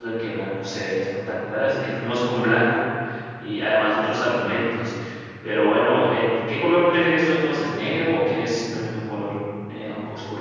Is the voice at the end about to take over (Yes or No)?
Yes